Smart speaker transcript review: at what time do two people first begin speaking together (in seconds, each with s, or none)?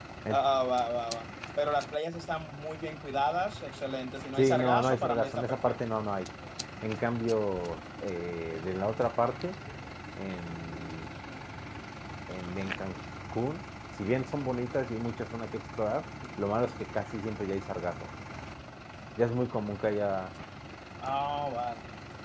4.4 s